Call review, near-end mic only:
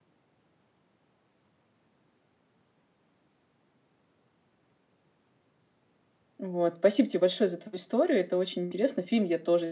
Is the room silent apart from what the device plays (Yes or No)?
No